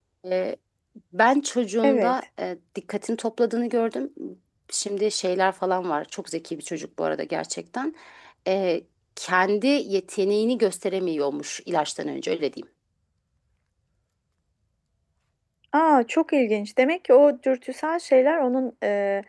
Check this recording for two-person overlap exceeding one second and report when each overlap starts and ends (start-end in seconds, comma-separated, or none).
none